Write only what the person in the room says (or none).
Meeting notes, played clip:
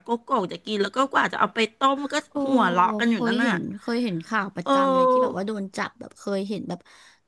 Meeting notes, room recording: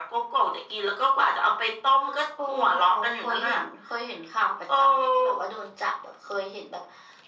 none